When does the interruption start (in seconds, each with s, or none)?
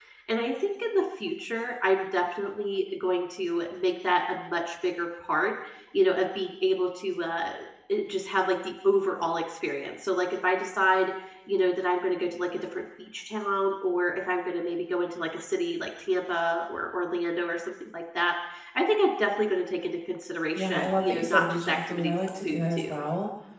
20.5 s